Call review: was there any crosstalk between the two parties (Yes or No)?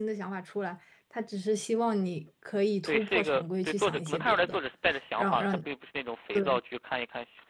Yes